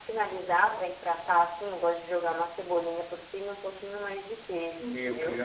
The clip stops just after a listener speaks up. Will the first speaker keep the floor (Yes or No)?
No